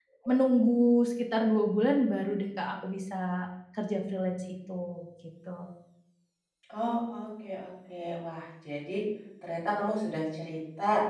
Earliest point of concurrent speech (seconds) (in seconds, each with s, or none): none